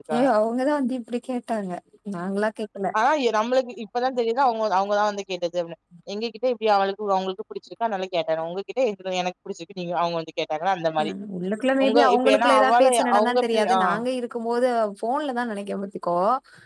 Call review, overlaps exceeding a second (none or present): present